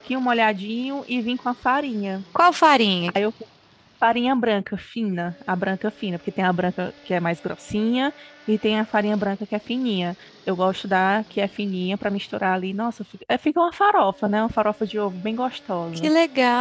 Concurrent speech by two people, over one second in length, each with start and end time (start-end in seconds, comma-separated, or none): none